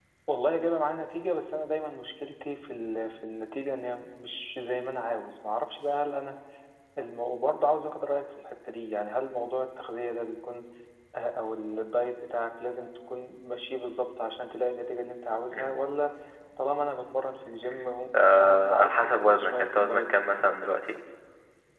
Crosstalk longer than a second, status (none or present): present